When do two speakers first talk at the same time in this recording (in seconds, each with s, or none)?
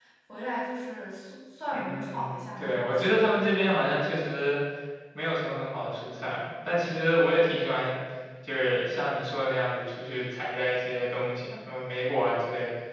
1.7 s